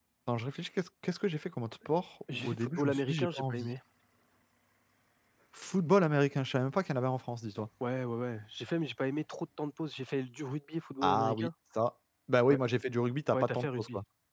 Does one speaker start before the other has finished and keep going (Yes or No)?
Yes